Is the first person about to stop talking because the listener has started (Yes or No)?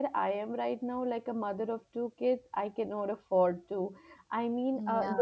No